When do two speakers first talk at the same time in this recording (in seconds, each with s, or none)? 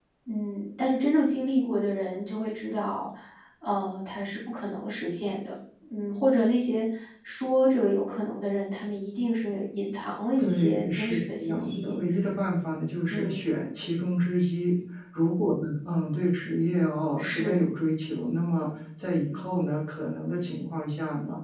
10.4 s